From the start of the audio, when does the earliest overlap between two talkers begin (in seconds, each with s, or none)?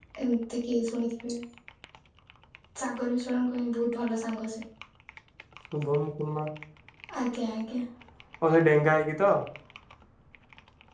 none